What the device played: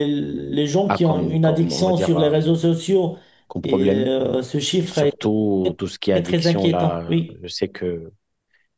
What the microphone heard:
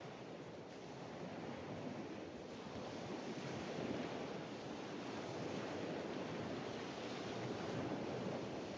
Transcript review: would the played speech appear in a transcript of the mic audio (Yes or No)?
No